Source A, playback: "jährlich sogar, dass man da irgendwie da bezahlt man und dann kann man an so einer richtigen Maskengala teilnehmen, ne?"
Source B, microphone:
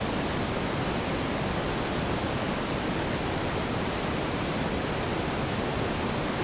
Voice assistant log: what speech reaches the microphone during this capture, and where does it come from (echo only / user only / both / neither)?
neither